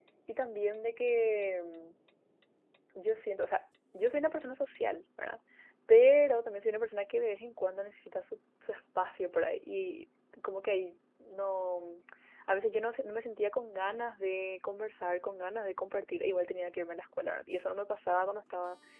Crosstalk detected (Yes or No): No